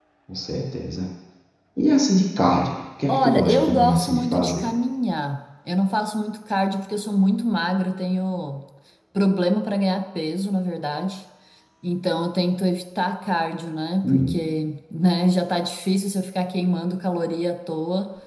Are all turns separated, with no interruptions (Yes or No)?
No